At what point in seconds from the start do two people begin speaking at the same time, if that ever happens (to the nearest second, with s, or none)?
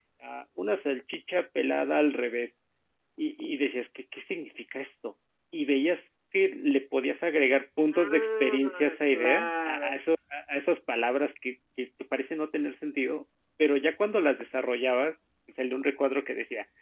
8 s